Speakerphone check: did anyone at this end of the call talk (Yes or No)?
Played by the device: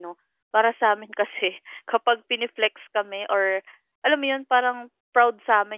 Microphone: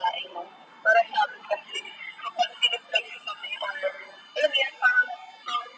No